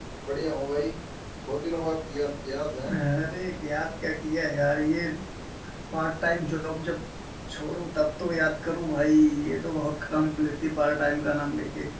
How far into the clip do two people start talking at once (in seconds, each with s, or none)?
none